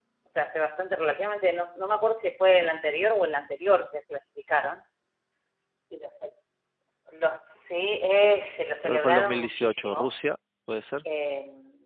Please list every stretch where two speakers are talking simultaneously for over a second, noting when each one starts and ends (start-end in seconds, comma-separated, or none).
8.8-10.1